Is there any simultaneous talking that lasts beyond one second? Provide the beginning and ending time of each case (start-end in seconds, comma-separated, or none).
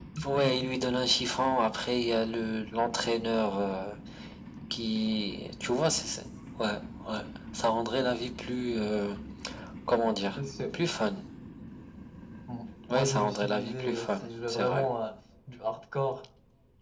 12.9-14.9